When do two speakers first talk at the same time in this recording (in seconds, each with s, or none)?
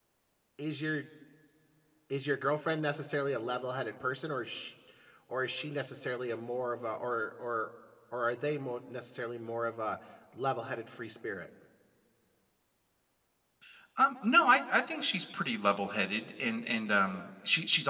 none